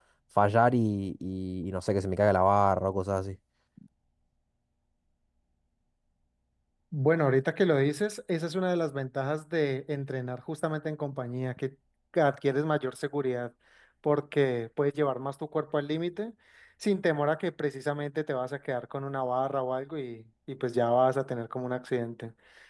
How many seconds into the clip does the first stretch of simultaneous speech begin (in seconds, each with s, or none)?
none